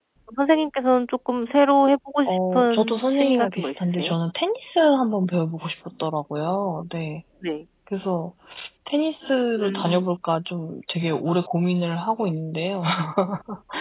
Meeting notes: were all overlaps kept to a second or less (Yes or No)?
No